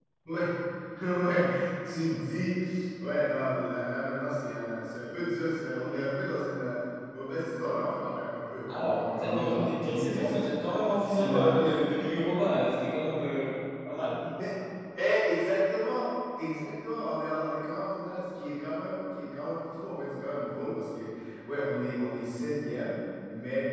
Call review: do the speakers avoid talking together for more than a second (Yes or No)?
No